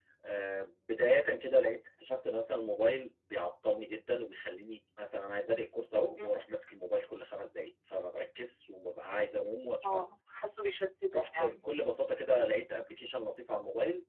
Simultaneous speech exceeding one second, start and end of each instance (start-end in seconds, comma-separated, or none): none